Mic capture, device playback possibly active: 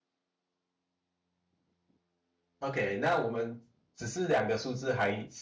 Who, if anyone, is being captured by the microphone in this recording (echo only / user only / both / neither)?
user only